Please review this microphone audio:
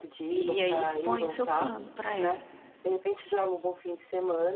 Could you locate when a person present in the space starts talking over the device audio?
0.4 s

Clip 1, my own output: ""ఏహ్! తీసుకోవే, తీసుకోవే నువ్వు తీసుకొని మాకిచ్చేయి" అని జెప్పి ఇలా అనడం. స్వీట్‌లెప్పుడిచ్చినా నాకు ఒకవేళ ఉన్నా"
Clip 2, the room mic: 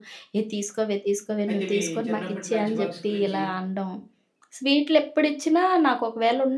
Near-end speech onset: 1.5 s

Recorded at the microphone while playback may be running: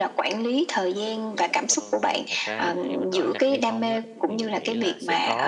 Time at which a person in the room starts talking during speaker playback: 1.6 s

